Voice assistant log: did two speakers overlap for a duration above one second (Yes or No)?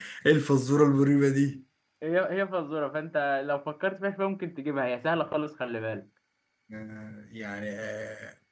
No